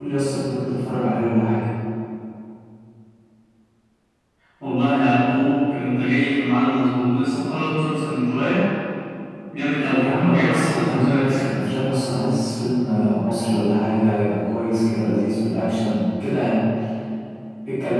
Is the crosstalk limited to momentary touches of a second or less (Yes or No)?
No